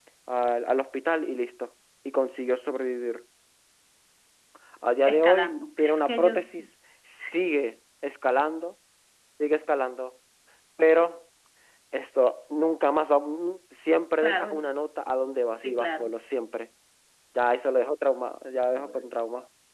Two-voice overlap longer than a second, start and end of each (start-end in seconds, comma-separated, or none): 5.0-6.7